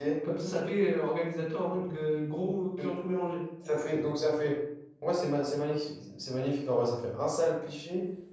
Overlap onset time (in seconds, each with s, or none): none